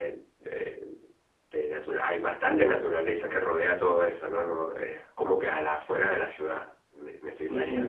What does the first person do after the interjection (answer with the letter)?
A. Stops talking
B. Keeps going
A